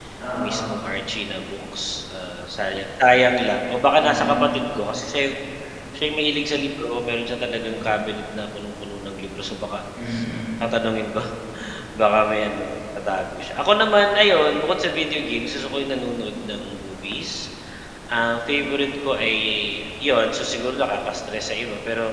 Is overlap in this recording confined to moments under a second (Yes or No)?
Yes